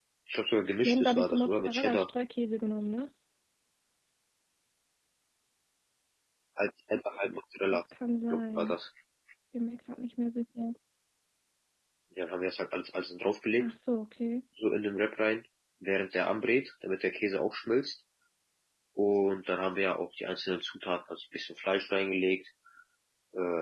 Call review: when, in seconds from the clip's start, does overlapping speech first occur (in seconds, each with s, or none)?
0.8 s